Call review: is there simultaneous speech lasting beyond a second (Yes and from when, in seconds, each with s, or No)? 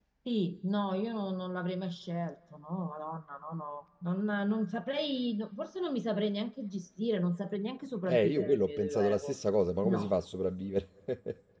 Yes, from 8.1 s